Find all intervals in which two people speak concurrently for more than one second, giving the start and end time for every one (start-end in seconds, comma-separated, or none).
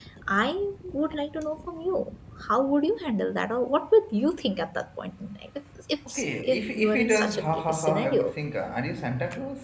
6.1-8.3